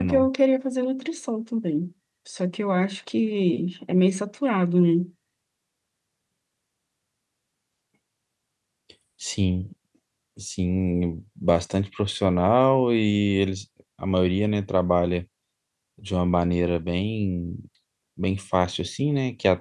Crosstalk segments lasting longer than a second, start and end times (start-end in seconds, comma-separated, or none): none